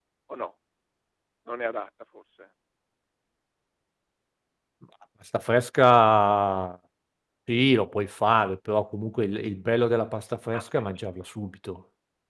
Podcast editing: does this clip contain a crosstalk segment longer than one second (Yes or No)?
No